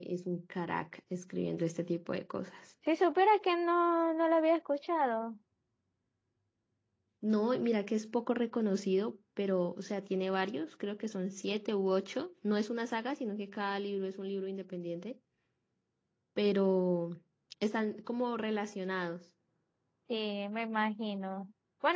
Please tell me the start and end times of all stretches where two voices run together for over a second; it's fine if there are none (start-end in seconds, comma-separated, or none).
none